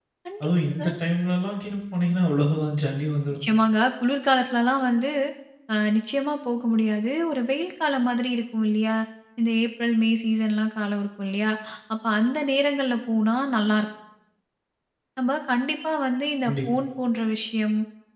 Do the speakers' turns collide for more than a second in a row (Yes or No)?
No